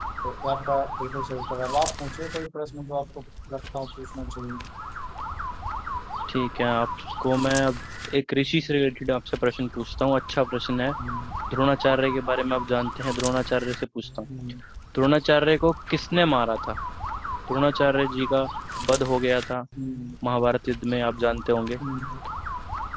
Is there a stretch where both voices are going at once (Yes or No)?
No